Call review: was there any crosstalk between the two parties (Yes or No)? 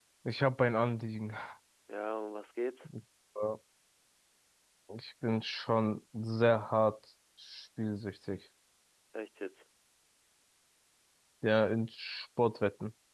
No